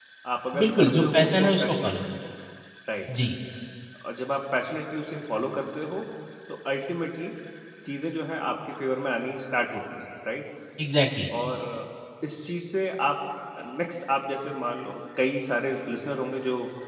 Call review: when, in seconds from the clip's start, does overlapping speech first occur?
0.5 s

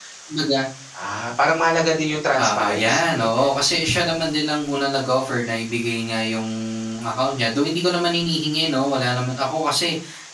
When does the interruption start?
2.4 s

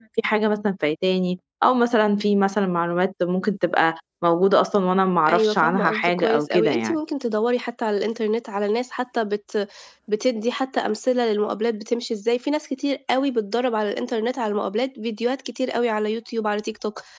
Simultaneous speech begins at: 5.3 s

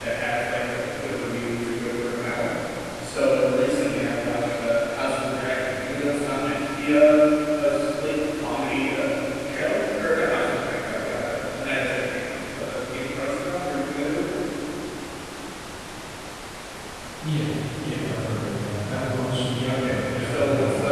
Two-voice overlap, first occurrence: 19.6 s

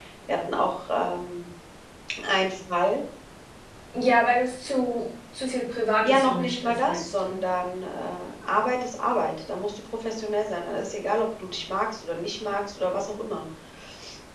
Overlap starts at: 6.0 s

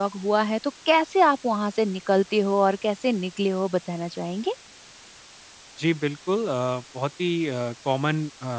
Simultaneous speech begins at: none

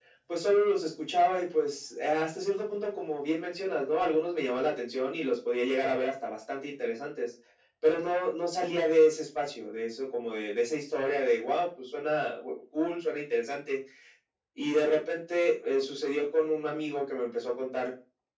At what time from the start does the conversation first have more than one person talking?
none

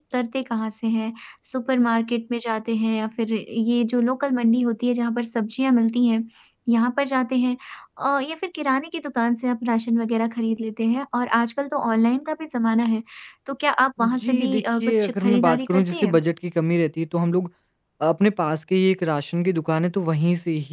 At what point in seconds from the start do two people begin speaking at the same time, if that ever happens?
14.0 s

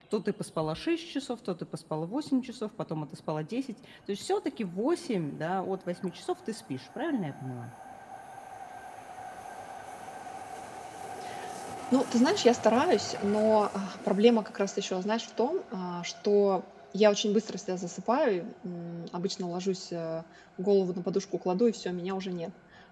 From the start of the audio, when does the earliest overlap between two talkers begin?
none

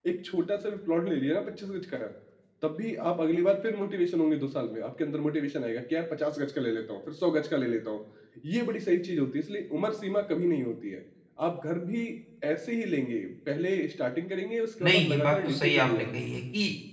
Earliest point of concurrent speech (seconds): 14.8 s

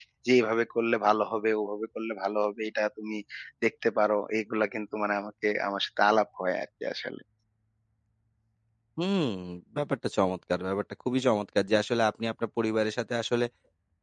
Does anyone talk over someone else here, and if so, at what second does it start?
none

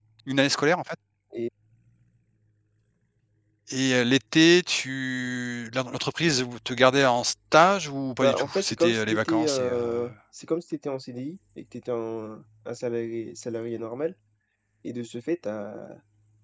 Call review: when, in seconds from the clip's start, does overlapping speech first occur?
8.2 s

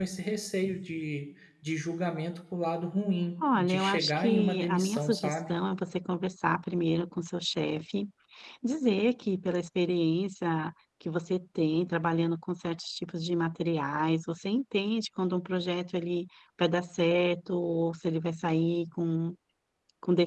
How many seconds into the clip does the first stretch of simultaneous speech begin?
3.4 s

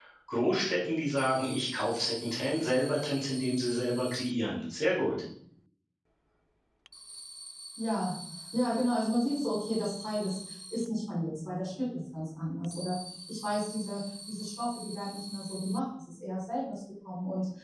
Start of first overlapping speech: none

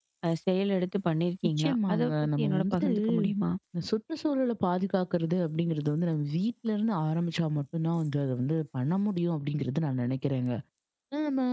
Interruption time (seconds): 1.6 s

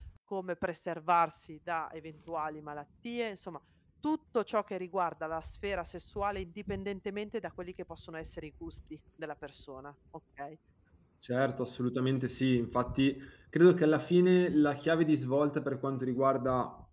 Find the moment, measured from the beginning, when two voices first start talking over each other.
none

